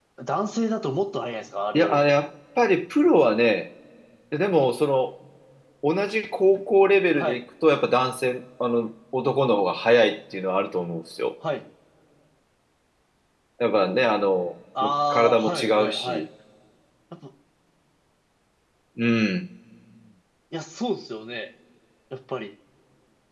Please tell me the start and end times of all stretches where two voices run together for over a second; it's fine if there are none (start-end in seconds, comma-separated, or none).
14.8-16.2